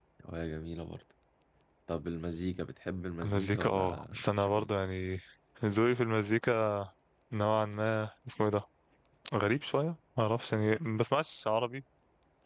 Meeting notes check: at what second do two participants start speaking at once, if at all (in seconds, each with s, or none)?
3.2 s